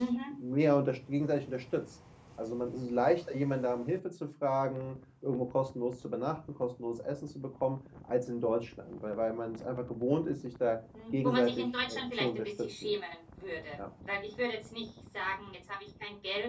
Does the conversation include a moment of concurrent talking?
Yes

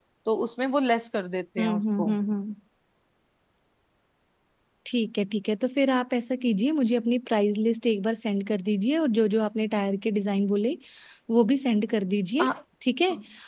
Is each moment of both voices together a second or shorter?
Yes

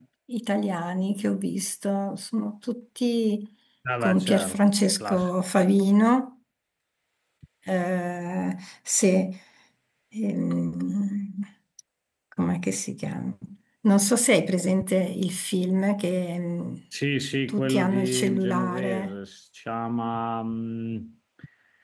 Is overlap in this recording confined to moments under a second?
No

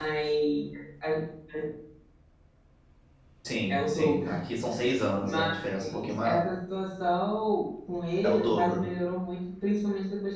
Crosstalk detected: Yes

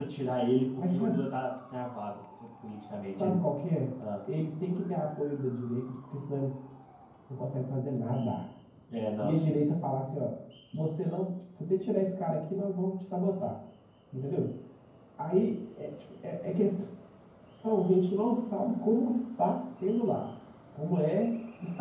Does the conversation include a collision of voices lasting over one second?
No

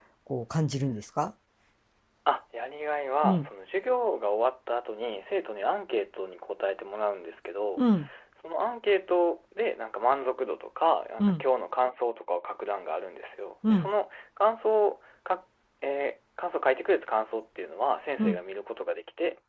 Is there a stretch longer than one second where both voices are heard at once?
No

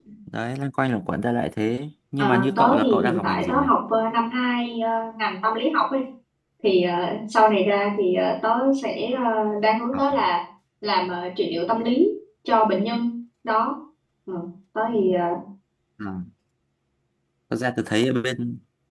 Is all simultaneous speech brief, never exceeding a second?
No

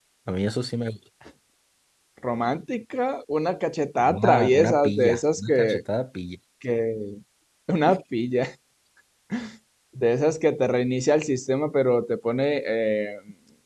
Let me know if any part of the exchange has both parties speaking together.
Yes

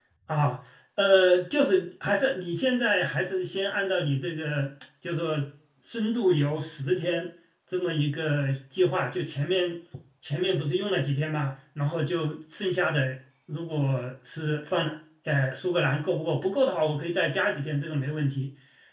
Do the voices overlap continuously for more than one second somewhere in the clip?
No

